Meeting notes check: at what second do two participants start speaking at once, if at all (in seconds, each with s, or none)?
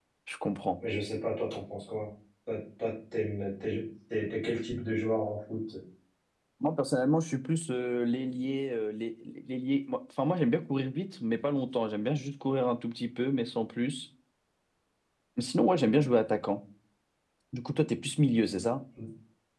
none